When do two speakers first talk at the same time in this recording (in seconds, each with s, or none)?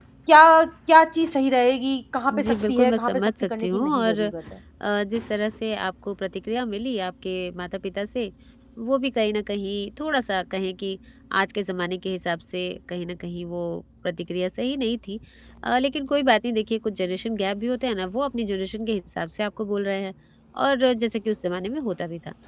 2.3 s